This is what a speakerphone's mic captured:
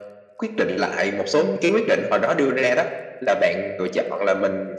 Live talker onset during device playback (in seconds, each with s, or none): none